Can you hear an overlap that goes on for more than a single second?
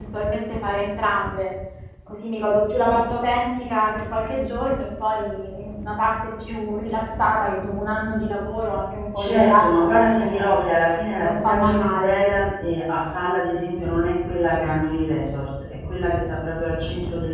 Yes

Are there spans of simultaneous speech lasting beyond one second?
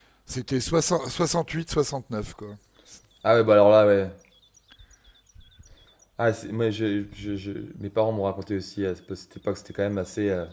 No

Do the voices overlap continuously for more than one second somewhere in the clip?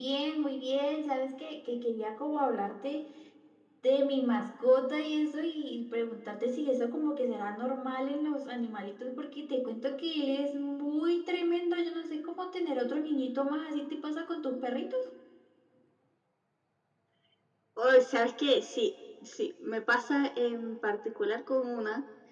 No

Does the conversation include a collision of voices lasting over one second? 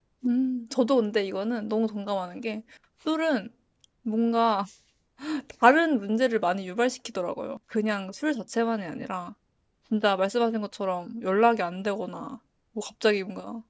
No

